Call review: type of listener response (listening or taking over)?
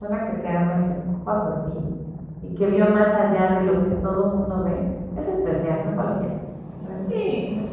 taking over